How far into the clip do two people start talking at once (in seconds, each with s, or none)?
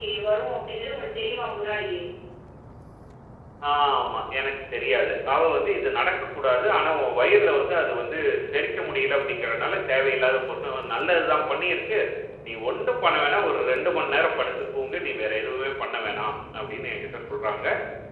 none